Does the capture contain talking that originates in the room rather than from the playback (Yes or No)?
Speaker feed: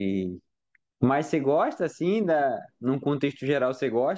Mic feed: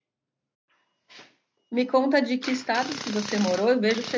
Yes